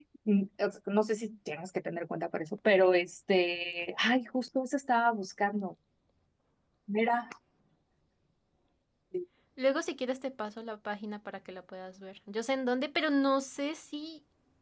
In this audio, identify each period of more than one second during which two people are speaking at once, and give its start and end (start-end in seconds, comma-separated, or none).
none